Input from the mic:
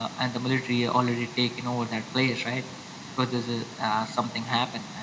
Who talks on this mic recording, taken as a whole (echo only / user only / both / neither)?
echo only